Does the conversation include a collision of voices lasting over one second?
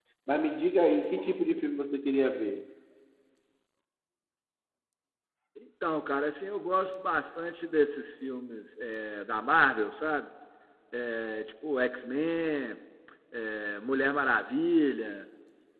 No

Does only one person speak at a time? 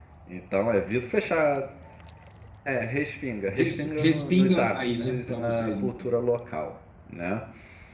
No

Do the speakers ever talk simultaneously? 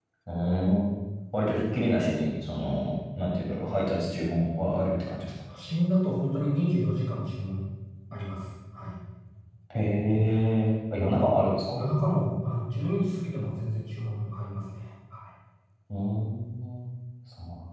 No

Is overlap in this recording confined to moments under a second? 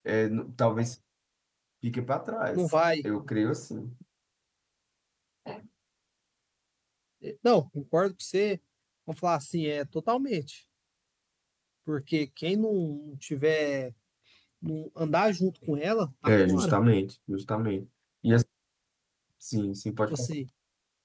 Yes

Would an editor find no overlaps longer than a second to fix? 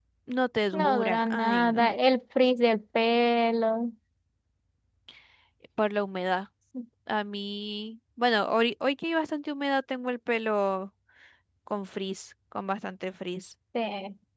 No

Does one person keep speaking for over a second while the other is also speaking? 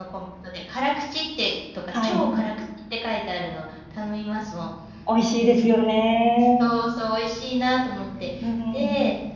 No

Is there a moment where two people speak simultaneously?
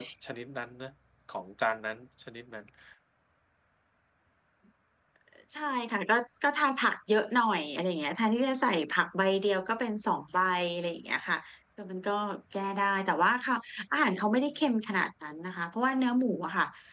No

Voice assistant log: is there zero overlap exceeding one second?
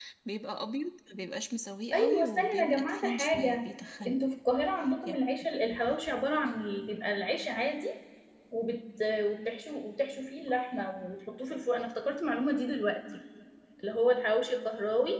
No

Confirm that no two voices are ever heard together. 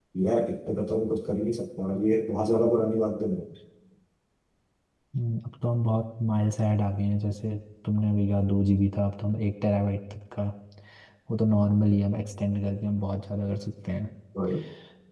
Yes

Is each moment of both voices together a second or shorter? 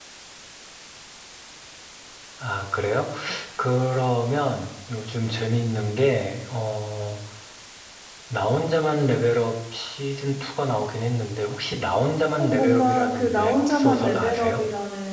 No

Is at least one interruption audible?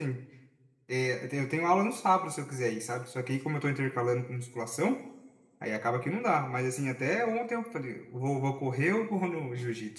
No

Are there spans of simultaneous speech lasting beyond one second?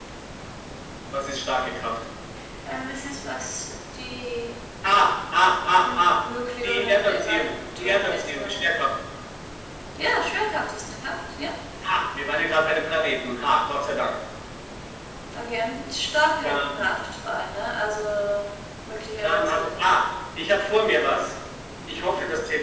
Yes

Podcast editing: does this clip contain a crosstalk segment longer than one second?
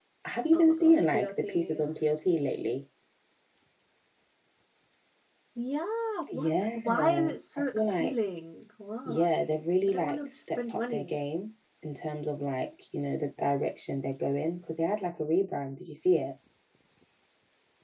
Yes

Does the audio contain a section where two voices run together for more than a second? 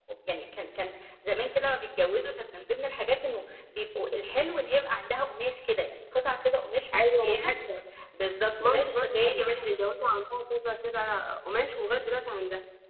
Yes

